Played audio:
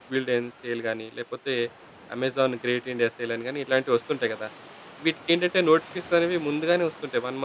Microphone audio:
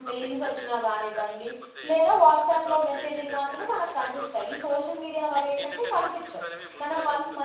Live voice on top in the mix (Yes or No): Yes